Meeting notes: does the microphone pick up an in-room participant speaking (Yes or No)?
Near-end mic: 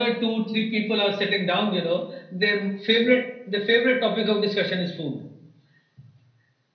No